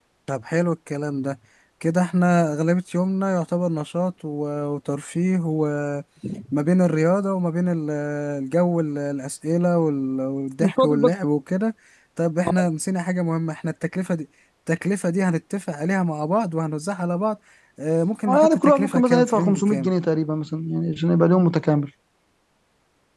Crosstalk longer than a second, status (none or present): present